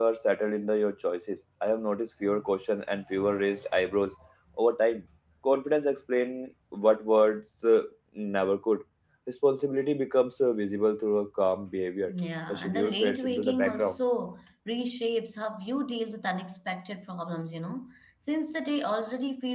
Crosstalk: present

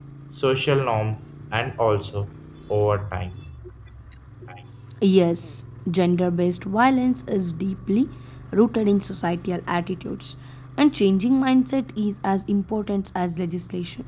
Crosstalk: none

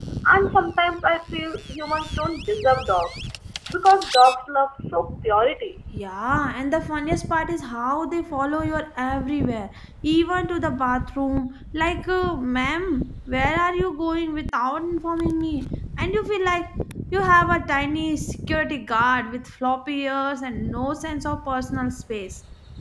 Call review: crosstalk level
none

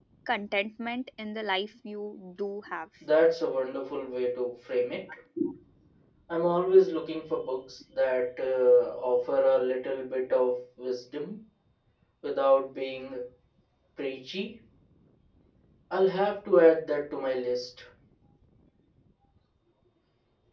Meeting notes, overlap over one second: none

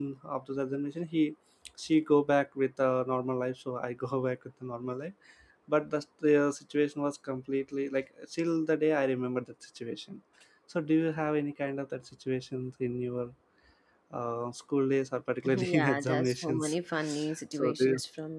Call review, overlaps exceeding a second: present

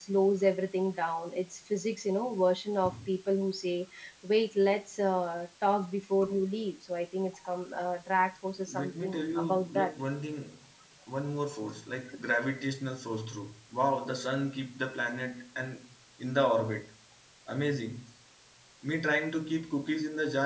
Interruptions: present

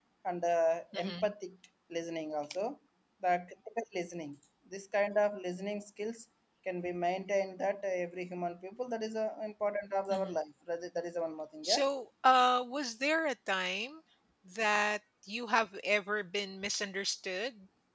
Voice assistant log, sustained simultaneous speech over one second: none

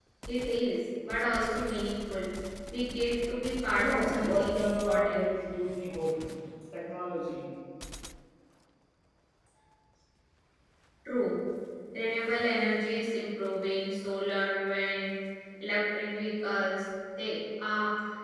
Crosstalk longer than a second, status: present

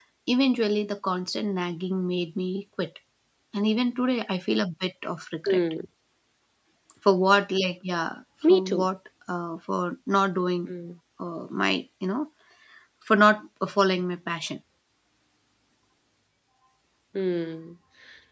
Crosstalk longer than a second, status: none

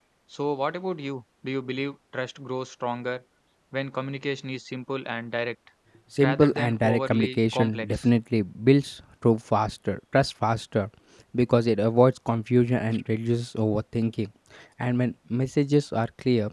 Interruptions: present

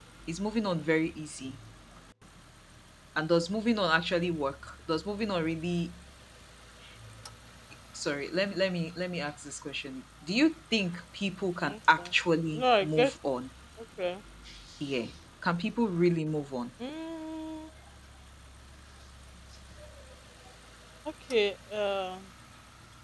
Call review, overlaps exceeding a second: none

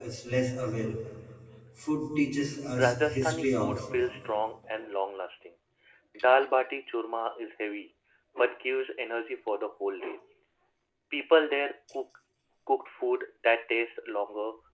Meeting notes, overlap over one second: present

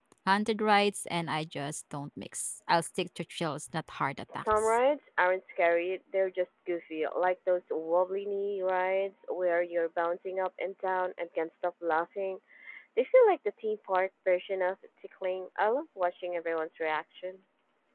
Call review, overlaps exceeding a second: none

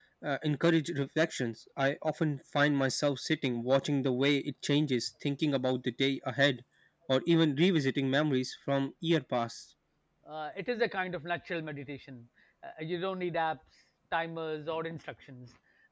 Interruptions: none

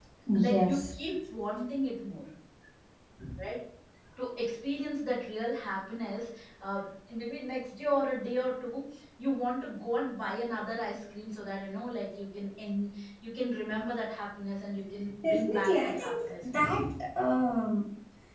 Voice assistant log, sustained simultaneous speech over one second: present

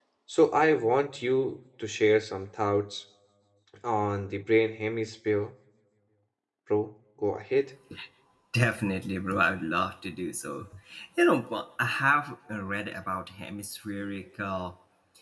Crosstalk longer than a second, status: none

